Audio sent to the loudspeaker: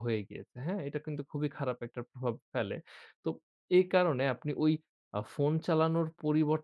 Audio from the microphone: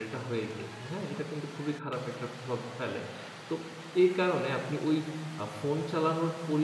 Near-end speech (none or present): none